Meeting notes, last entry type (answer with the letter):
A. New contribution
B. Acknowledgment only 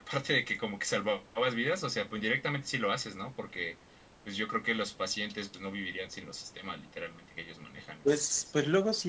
A